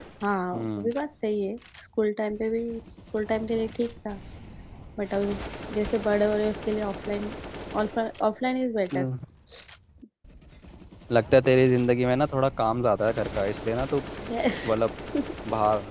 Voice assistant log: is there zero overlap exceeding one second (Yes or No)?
Yes